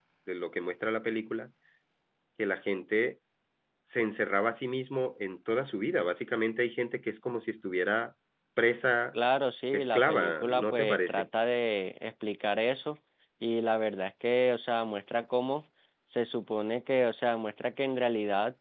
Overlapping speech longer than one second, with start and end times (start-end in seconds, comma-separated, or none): 9.7-11.2